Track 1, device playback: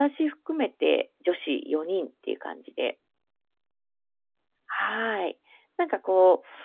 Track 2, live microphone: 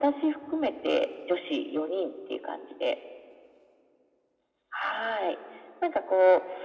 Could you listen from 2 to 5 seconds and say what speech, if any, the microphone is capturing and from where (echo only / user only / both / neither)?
echo only